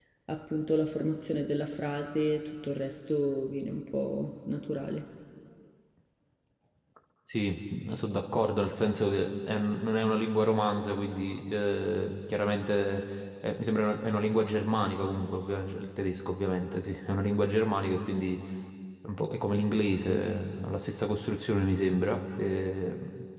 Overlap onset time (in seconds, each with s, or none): none